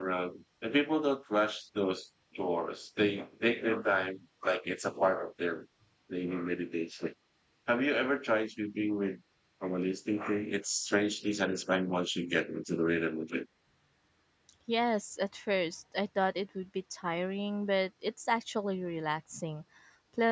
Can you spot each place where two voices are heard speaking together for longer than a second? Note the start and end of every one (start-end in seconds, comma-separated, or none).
none